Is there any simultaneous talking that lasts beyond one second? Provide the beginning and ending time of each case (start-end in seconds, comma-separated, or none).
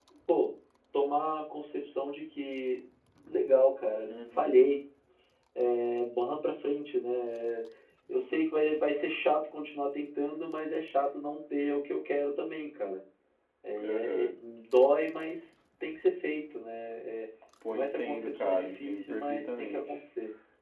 17.7-19.8